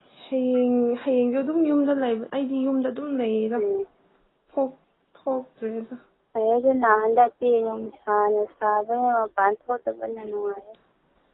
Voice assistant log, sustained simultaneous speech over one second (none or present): none